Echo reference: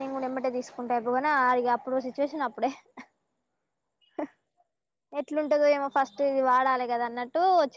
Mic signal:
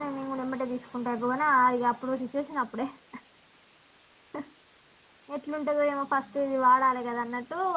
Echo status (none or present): present